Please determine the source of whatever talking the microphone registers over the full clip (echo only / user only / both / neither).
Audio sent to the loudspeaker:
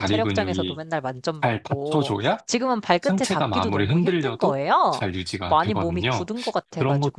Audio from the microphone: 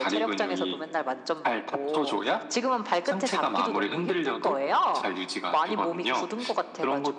echo only